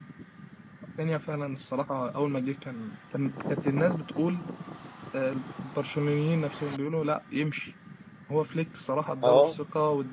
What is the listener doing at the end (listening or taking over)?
listening